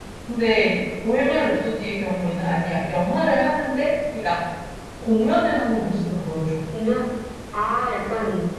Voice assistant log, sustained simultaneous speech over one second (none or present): none